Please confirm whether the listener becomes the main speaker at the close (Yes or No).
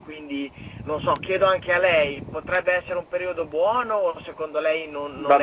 Yes